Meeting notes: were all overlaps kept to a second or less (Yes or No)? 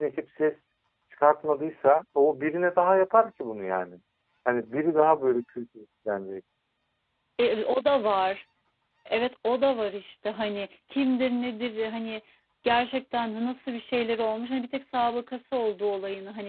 Yes